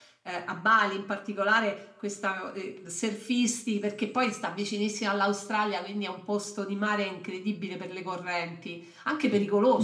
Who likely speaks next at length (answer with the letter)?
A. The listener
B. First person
B